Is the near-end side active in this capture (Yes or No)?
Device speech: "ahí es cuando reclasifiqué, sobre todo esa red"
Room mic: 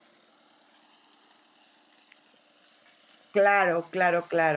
Yes